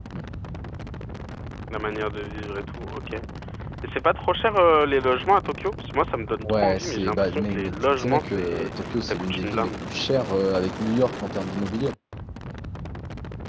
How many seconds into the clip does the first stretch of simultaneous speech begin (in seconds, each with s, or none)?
6.4 s